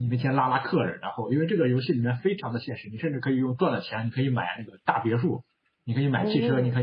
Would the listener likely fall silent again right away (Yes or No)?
Yes